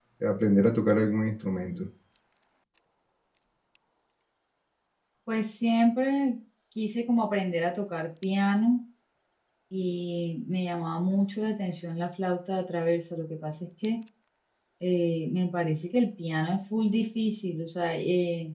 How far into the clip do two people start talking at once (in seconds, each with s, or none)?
none